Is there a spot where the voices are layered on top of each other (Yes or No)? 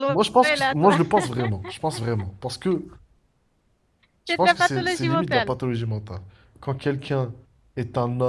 Yes